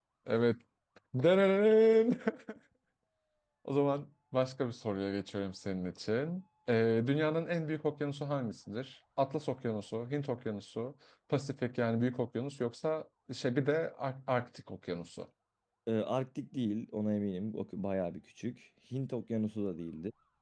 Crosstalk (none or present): none